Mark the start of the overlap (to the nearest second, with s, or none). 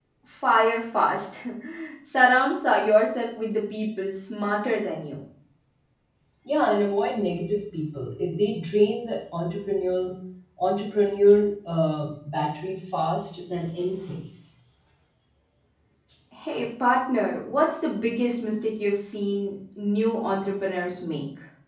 none